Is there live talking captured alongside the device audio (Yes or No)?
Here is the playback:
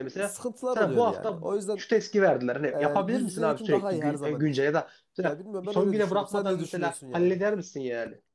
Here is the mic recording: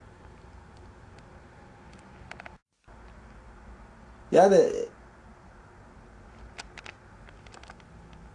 Yes